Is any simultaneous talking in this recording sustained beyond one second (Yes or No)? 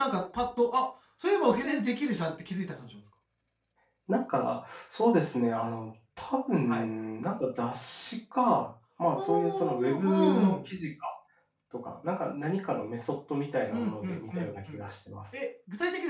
Yes